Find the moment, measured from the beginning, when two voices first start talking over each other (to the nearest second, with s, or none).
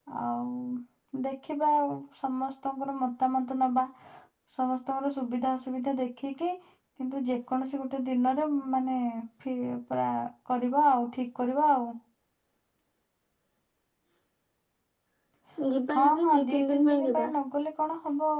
16 s